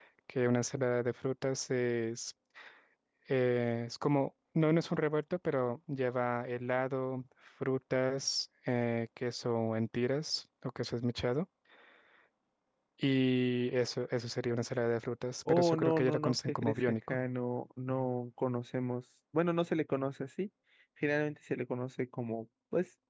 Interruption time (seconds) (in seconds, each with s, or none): 15.5 s